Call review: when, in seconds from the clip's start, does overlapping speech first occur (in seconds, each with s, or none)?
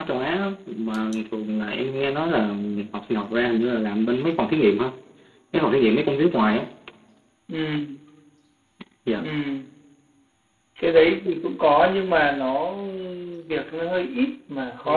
none